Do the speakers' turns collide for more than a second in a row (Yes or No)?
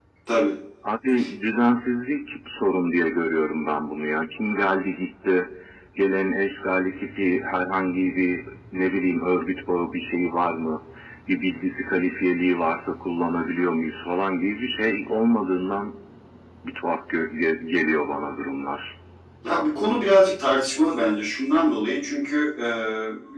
No